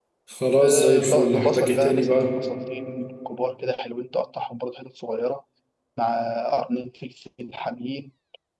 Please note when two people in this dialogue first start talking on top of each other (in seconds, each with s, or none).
0.6 s